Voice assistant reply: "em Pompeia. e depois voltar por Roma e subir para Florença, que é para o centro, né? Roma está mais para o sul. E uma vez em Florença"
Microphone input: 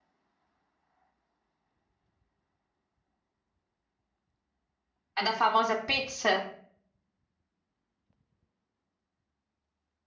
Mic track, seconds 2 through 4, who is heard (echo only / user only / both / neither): neither